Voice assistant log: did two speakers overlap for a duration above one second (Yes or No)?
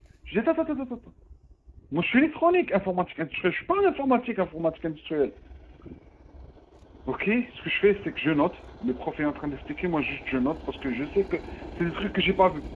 No